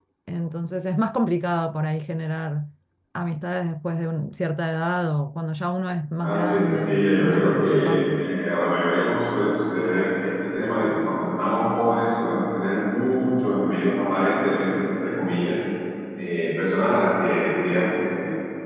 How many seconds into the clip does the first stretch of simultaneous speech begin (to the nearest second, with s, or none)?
6 s